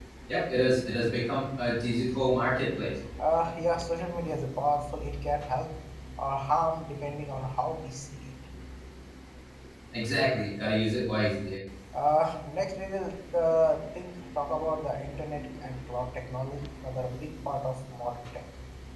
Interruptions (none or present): none